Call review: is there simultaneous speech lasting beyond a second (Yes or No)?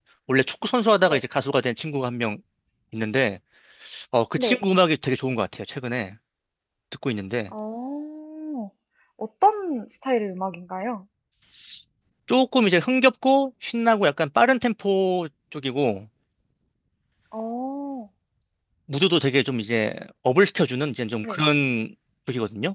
No